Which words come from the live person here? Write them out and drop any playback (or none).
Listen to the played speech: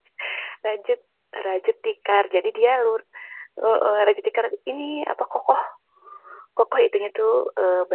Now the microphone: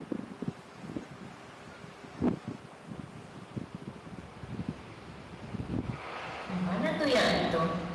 gimana tuh ya gitu?